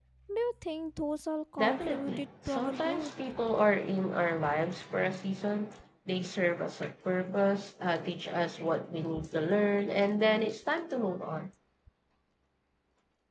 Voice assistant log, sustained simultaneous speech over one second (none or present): present